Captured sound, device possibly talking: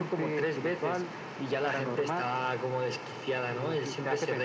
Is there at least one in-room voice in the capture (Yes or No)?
No